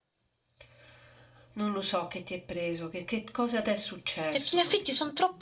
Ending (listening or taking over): taking over